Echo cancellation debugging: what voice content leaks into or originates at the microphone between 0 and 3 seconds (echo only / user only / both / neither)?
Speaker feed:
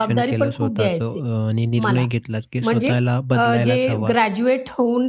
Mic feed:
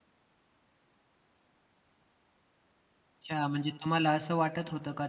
neither